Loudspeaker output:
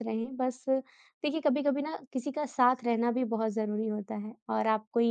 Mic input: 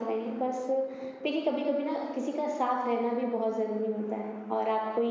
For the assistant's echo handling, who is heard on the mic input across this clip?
echo only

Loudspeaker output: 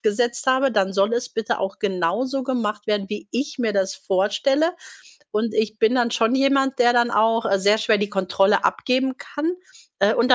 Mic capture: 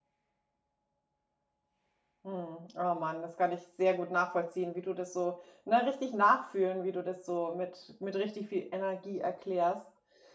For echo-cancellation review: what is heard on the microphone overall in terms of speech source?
user only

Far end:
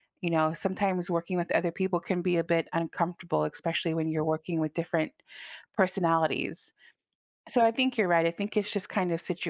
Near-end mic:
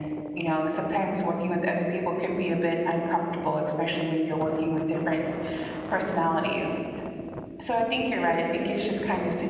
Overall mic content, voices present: echo only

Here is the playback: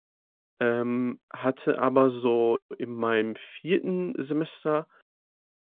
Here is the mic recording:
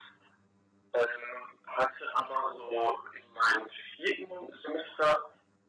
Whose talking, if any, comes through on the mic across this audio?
echo only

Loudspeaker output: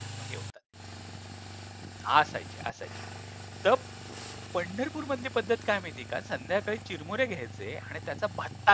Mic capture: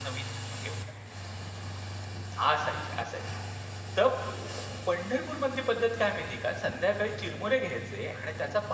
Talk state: echo only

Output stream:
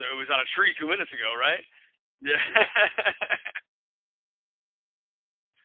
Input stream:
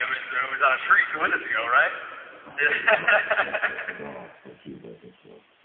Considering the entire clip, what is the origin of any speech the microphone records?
both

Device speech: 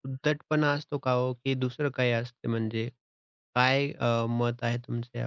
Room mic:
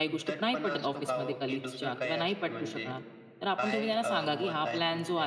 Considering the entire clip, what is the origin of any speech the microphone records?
both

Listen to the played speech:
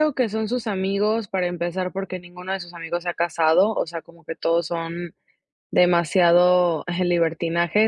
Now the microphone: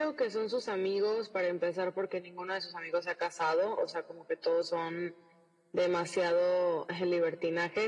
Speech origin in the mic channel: echo only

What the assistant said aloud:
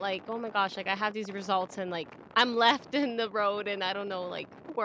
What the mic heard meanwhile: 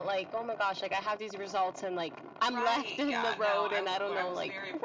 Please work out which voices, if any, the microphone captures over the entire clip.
both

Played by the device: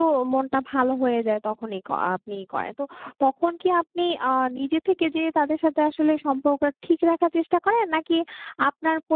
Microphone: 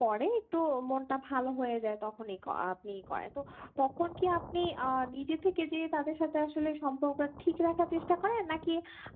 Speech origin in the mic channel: echo only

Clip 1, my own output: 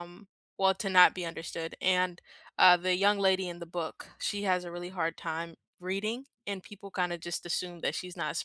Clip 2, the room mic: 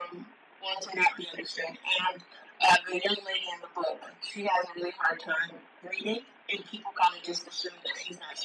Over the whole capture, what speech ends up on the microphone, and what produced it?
echo only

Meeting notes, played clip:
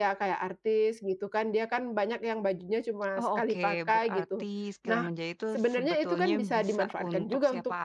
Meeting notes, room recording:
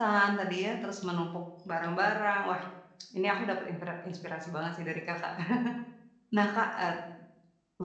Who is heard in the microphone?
user only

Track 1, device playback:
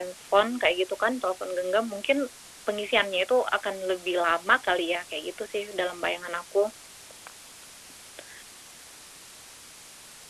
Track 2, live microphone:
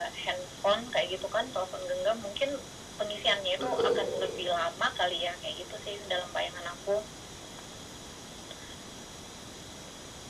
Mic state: both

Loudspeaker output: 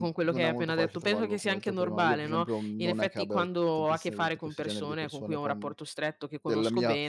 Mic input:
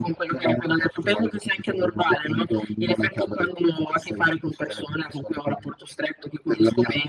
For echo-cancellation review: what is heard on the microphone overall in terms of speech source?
echo only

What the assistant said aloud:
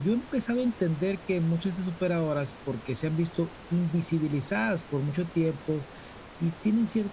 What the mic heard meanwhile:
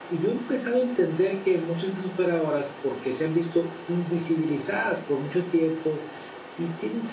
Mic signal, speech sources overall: echo only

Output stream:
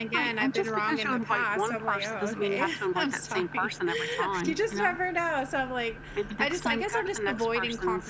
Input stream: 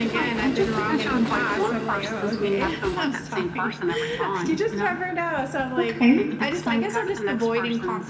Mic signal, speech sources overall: both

